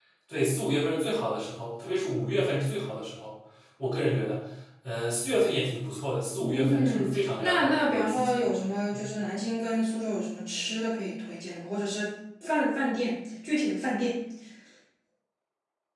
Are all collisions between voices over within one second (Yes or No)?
No